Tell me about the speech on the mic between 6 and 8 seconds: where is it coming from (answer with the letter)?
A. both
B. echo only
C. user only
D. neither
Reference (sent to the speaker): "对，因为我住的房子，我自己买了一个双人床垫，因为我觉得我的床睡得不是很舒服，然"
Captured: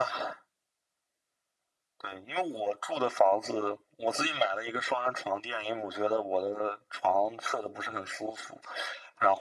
B